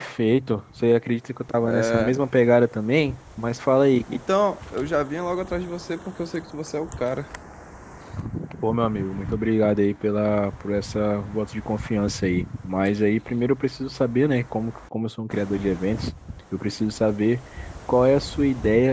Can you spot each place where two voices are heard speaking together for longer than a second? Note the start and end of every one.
none

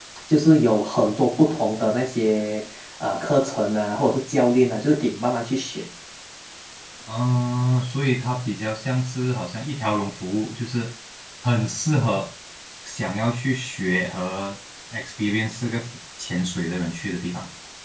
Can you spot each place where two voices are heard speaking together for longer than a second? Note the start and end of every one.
none

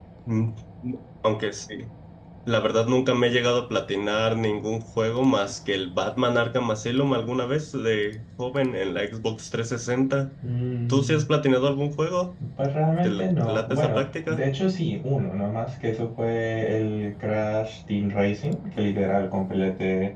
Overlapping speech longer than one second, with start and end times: 13.0-14.4

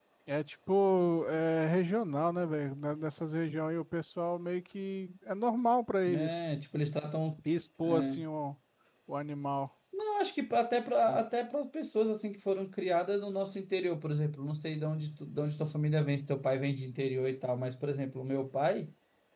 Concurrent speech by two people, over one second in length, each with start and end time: none

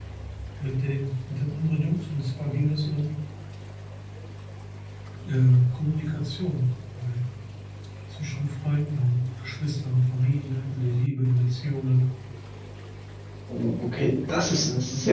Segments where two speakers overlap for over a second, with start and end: none

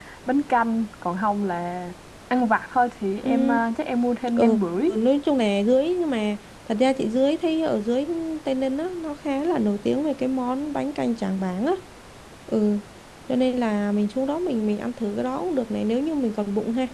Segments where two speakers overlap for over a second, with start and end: none

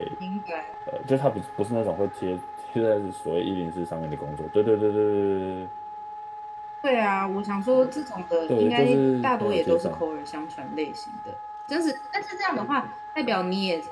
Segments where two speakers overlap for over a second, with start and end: 8.5-10.0

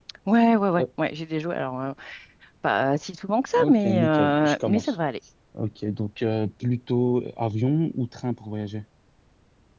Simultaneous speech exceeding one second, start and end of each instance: 3.5-5.0

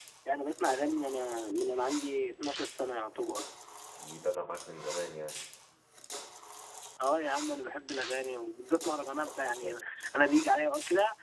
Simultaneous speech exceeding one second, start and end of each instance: none

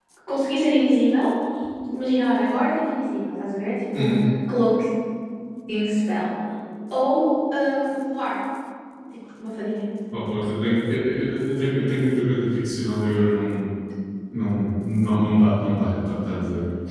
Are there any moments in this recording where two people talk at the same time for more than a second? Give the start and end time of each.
none

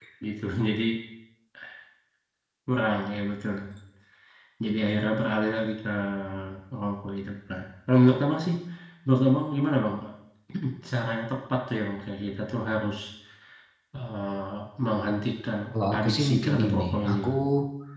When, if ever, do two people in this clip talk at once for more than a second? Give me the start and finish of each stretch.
16.0-17.3

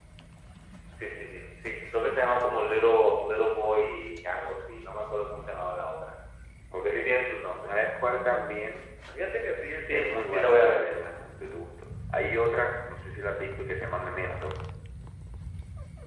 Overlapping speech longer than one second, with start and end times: 9.9-11.1

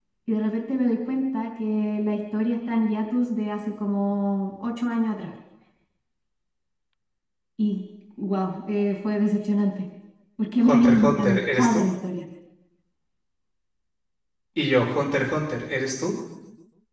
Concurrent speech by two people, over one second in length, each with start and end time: 10.6-11.8

